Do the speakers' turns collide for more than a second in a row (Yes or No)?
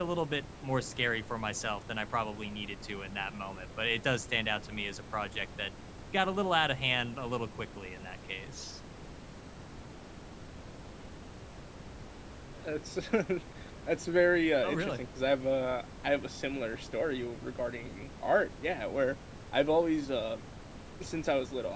No